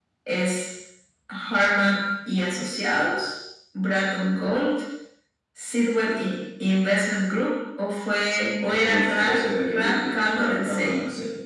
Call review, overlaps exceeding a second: present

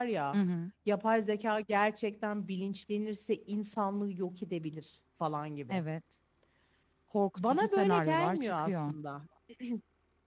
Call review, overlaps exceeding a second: present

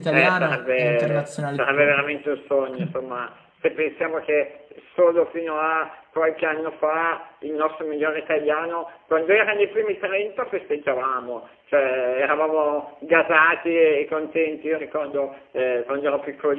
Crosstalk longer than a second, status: present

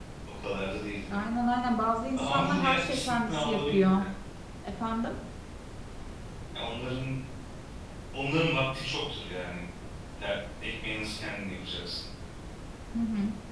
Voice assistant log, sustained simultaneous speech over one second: present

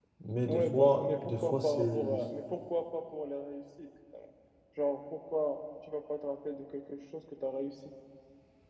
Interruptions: present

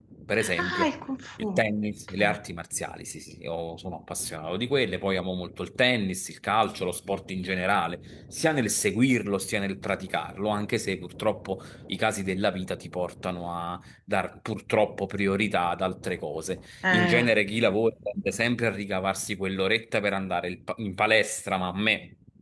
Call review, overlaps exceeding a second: none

